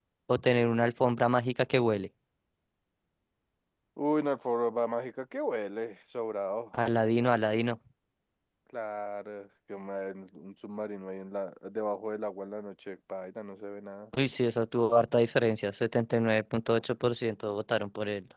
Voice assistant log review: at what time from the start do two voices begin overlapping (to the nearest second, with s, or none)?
none